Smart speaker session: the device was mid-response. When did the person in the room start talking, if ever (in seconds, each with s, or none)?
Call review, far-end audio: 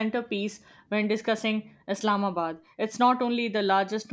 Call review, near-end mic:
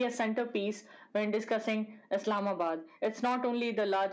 none